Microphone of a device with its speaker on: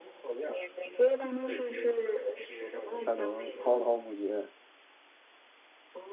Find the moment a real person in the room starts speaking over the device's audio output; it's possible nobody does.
3.0 s

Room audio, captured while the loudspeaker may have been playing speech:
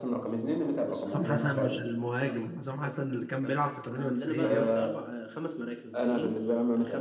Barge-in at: 1.1 s

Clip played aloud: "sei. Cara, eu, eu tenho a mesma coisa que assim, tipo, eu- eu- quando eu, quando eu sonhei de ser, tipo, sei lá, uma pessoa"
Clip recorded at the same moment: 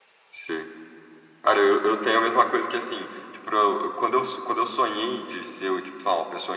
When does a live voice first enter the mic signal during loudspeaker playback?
none

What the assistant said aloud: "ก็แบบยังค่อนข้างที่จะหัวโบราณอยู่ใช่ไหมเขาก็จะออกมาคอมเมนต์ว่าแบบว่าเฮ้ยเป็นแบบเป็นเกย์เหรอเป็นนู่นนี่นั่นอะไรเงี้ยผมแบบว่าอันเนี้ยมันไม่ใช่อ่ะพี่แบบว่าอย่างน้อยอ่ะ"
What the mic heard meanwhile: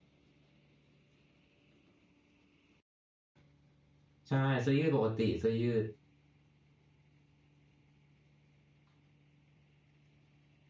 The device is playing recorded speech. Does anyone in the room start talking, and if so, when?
4.3 s

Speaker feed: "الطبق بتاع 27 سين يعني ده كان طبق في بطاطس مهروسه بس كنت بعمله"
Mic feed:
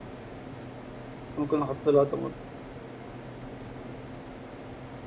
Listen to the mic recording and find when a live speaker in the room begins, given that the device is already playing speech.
1.3 s

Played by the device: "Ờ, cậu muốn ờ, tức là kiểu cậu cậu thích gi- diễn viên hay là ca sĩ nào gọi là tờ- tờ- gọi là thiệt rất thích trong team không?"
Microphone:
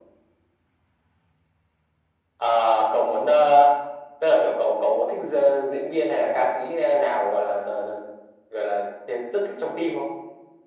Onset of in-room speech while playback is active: none

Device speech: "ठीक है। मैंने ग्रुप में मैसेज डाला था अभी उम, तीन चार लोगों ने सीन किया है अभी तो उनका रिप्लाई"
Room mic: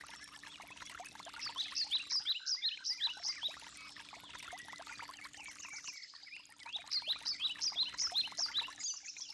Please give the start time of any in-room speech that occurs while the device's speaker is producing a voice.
none

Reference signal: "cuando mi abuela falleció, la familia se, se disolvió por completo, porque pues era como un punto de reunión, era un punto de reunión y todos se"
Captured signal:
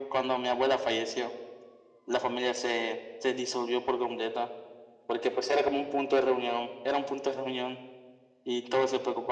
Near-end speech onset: none

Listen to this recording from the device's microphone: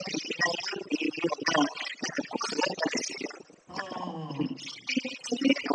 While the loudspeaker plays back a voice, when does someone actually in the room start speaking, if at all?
3.7 s

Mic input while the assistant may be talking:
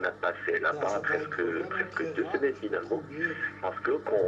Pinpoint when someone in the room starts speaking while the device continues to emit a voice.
0.7 s

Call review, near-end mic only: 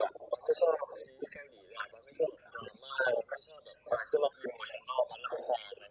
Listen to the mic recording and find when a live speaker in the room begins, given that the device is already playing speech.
none

